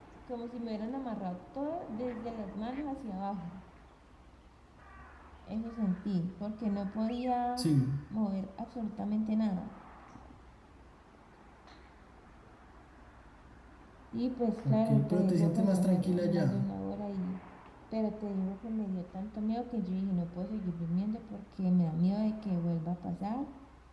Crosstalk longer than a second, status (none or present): present